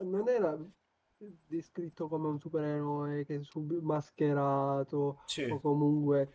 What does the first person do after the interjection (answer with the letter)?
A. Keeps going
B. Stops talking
A